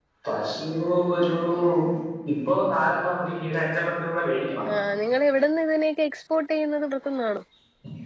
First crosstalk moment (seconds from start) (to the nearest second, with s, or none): none